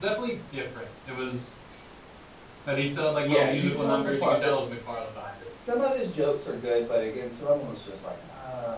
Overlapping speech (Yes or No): Yes